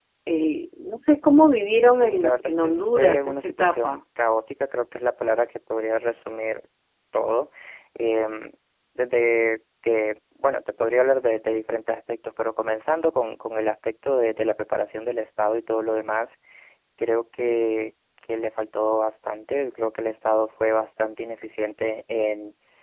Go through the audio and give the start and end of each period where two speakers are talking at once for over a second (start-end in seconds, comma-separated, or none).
1.9-4.0